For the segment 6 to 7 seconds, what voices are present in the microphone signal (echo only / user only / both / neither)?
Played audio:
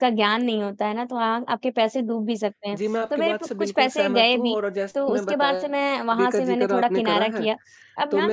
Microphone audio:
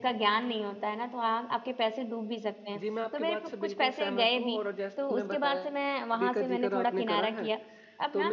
echo only